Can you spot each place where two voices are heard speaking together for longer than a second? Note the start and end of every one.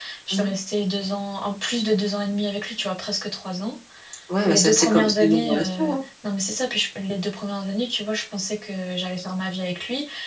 4.4-6.0

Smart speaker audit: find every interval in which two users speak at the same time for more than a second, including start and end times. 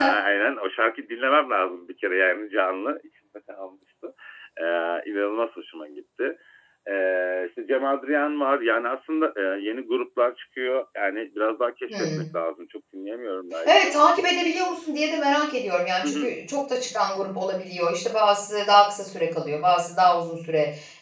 none

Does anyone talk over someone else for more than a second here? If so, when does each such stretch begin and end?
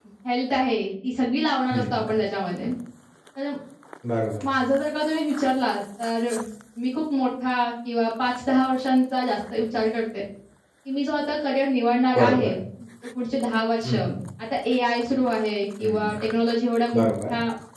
none

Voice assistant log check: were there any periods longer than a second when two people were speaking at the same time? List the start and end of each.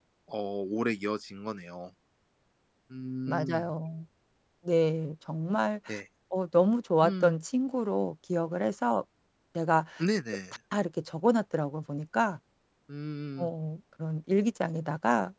none

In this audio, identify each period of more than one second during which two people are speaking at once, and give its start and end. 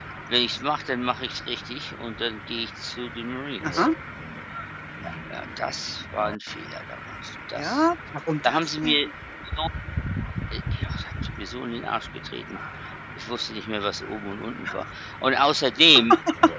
none

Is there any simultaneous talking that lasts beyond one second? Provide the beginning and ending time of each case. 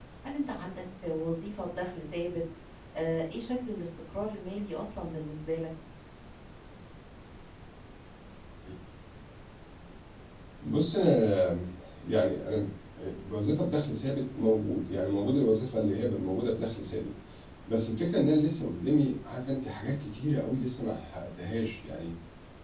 none

